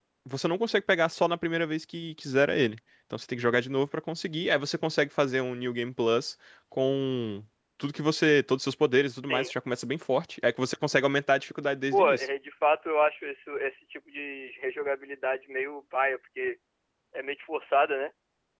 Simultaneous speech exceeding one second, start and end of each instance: none

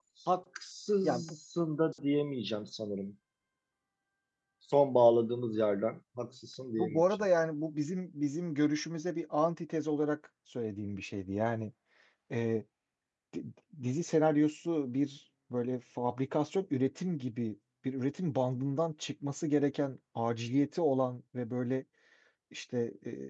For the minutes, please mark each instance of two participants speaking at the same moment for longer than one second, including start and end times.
none

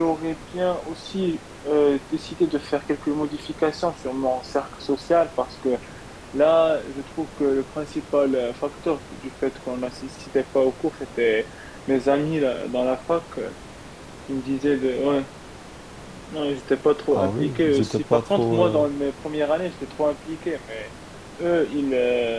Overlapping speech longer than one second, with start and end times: 17.1-18.8

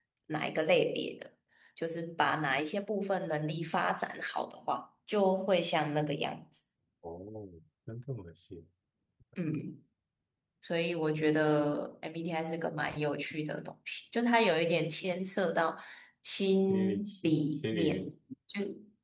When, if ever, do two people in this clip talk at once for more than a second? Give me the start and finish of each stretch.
16.7-18.1

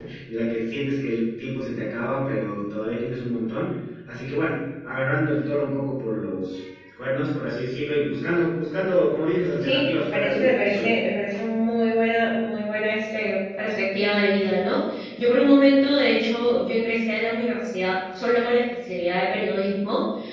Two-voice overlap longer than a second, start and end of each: 9.6-10.9

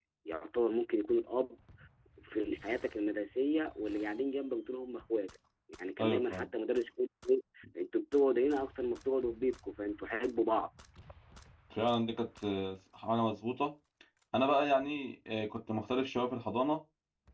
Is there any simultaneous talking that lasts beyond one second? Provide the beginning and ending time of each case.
none

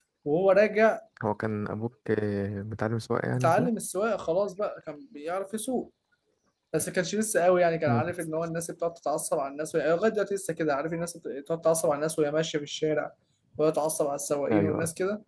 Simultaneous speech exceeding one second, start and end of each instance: none

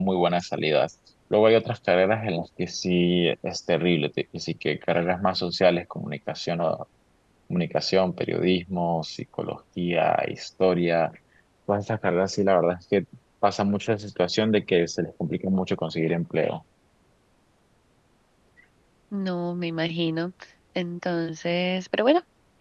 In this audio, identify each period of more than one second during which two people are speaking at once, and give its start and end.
none

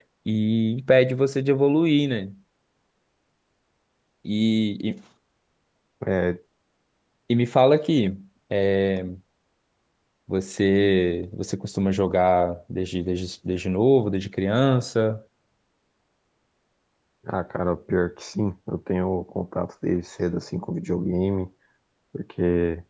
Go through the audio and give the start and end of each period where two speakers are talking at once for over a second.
none

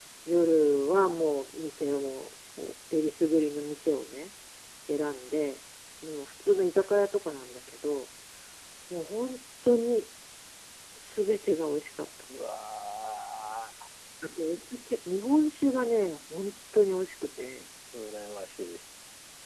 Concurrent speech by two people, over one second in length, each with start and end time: none

